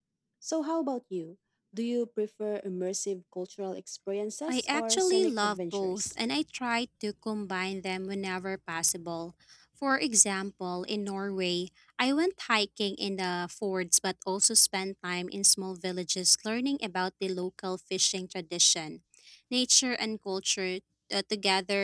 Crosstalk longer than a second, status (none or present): present